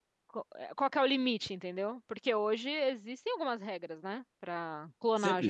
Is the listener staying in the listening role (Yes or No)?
No